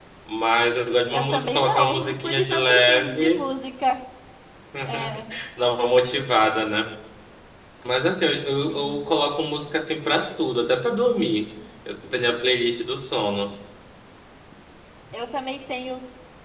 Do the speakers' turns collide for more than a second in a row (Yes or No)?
Yes